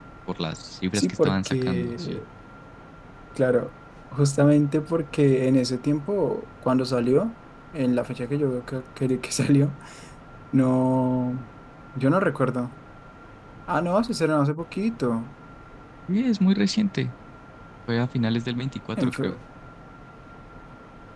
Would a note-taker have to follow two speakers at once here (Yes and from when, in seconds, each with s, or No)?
Yes, from 0.9 s